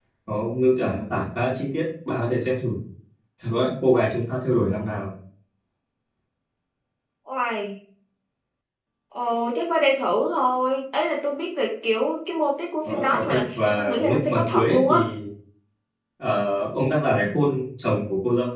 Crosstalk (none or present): present